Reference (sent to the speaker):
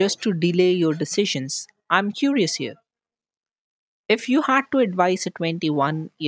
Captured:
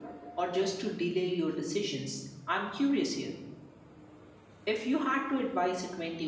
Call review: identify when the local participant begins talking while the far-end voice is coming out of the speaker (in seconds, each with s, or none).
none